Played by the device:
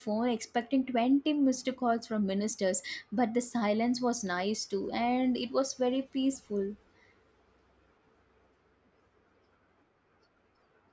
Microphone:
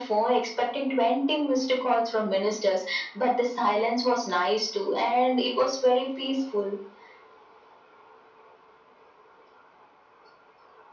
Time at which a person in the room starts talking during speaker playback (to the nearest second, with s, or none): none